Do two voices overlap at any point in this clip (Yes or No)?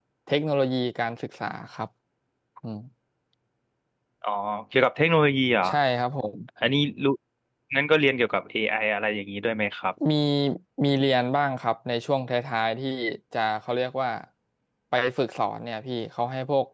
No